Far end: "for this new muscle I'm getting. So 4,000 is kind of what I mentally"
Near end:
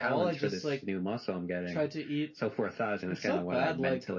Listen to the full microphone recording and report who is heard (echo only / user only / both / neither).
both